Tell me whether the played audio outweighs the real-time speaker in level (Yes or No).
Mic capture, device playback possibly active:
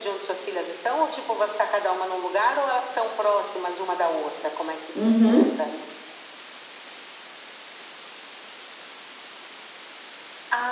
No